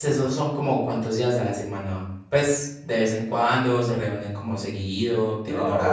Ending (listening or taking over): taking over